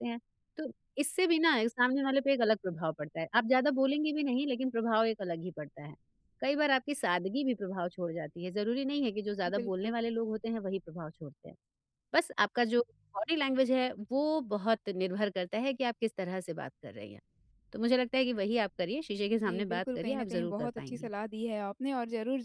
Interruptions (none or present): present